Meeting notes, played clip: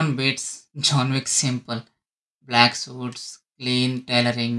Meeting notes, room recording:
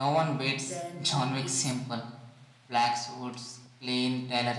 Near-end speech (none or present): present